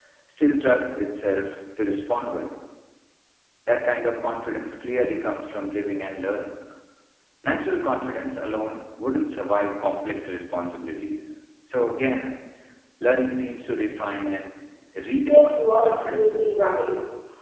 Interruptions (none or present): present